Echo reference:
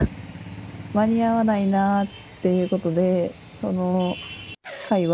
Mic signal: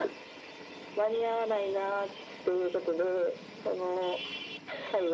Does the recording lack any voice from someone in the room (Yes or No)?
Yes